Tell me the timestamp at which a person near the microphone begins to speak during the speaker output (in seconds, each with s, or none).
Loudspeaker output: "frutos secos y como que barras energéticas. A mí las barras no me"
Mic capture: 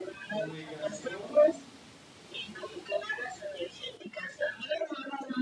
0.3 s